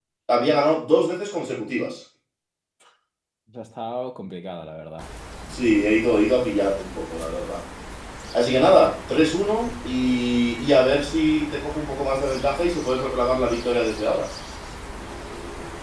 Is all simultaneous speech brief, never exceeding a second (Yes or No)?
Yes